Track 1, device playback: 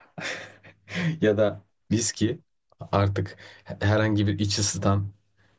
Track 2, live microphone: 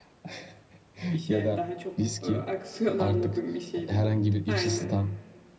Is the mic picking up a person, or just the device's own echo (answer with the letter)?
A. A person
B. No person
A